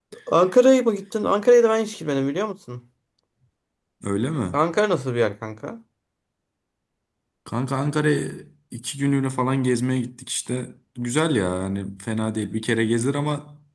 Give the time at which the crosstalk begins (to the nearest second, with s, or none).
none